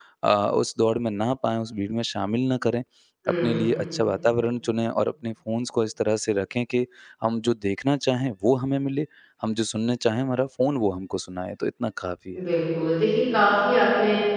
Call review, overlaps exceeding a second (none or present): none